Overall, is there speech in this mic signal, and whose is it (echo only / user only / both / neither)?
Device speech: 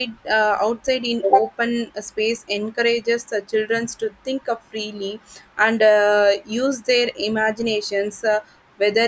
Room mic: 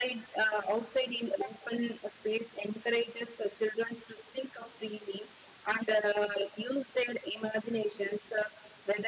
echo only